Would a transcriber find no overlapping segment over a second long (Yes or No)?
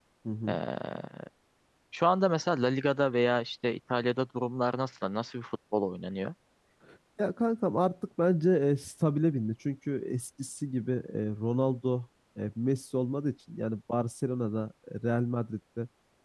Yes